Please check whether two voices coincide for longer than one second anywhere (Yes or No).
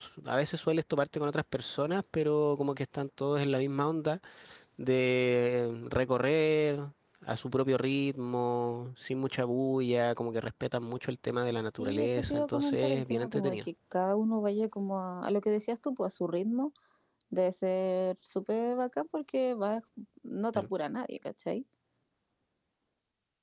Yes